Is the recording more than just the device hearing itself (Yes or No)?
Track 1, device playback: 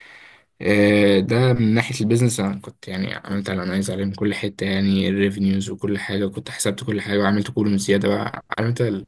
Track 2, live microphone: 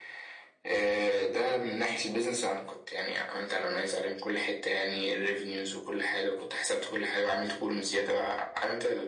No